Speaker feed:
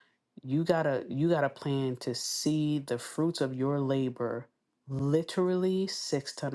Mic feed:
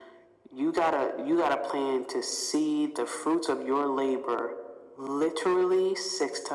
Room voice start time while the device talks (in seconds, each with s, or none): none